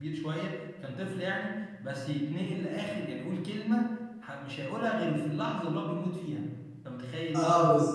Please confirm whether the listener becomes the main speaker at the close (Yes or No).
Yes